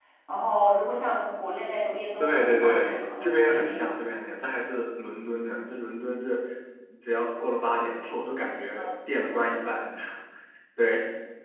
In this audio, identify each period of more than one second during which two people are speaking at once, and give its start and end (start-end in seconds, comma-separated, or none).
2.2-3.9